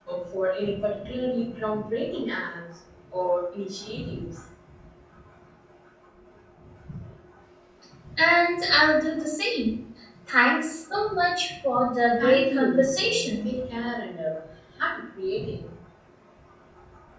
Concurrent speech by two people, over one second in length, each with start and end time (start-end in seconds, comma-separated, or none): 12.2-13.5